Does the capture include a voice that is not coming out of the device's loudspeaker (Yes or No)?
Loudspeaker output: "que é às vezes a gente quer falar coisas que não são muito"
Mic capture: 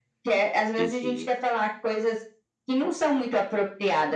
Yes